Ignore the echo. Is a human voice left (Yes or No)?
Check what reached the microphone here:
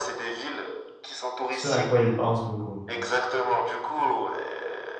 Yes